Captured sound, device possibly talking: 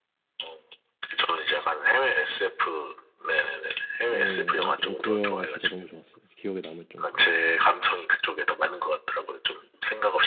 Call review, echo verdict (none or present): present